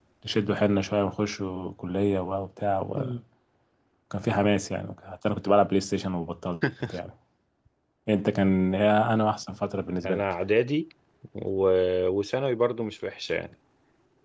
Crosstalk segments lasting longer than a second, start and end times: none

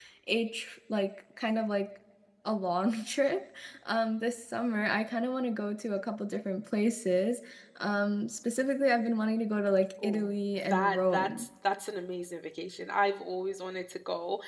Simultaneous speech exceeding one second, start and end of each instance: 10.0-11.4

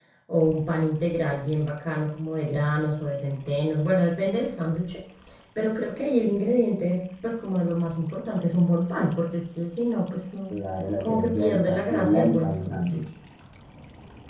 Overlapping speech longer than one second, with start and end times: 11.0-13.0

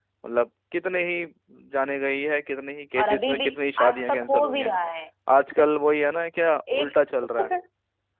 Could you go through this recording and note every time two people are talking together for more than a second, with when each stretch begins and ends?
3.0-4.7

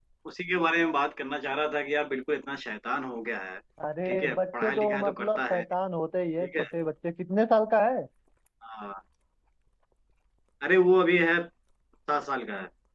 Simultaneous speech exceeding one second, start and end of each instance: 4.0-5.6

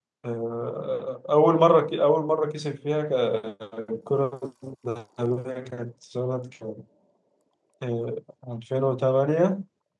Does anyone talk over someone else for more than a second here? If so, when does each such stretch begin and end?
none

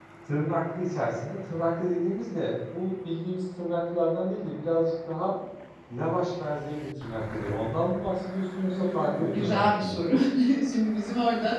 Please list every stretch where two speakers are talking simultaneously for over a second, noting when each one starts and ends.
8.6-10.0

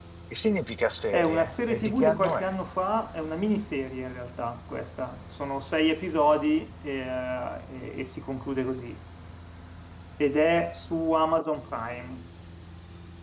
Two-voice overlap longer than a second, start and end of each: 1.1-2.6

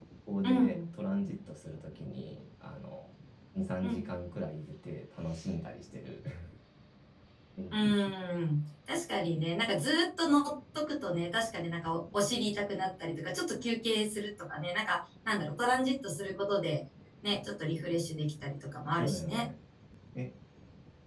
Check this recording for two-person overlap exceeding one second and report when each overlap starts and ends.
none

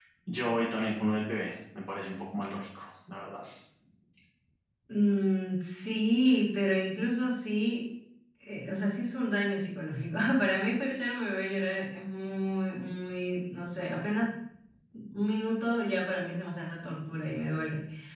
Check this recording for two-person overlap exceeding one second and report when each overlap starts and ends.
none

